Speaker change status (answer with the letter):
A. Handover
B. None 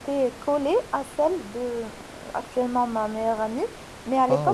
B